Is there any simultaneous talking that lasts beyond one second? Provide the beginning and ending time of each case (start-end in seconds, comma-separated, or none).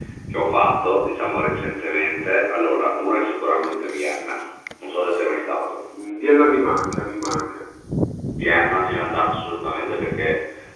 none